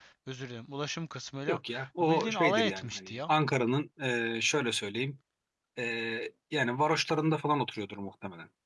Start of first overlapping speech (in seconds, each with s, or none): 2.0 s